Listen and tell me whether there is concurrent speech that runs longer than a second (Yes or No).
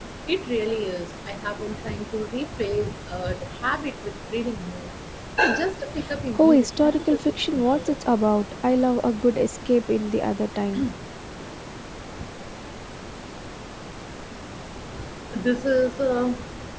Yes